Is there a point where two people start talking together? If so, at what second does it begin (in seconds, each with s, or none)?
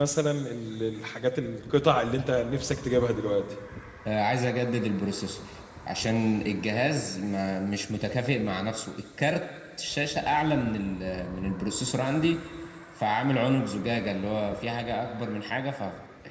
none